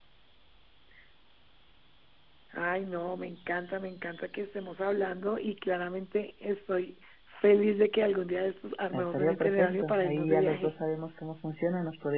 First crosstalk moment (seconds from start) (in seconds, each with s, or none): 8.9 s